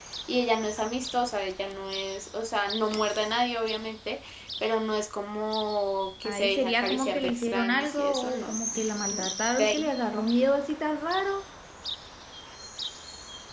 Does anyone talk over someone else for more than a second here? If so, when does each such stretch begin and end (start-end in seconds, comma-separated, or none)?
6.2-8.6